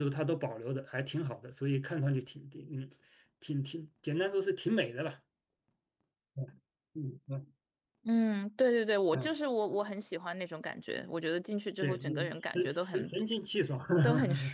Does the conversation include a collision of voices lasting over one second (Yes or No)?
No